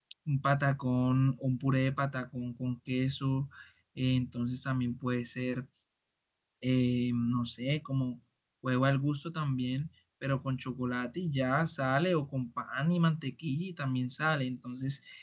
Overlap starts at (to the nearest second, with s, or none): none